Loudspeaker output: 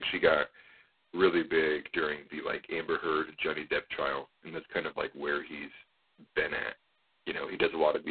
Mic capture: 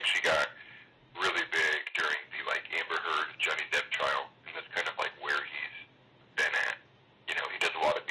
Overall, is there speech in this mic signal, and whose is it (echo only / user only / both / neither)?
echo only